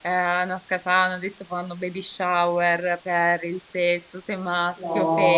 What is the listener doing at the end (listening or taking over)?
taking over